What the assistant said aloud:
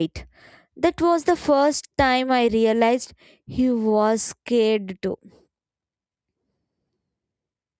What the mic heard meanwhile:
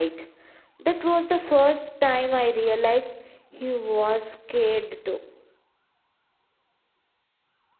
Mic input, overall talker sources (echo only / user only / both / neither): echo only